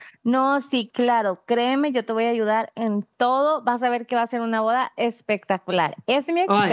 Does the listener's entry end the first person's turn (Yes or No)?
No